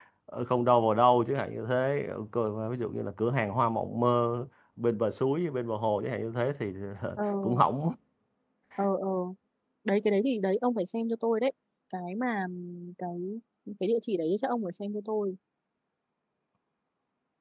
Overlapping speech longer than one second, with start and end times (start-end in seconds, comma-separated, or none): none